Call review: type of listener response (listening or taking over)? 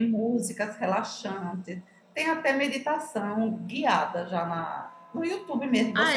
taking over